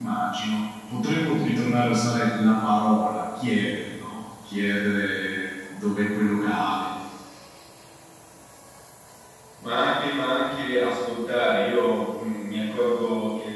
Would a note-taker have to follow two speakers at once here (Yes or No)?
No